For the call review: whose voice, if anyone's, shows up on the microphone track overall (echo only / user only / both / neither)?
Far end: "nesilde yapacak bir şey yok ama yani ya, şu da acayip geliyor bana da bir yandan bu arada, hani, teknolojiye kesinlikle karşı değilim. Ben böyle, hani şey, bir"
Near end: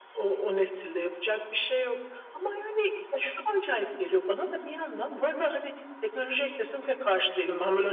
echo only